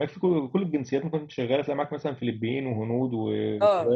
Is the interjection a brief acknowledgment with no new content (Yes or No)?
No